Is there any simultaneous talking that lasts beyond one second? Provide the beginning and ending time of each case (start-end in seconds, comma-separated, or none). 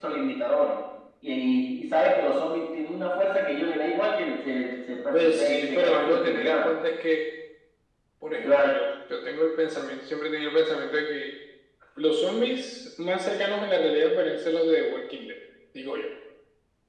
5.1-6.7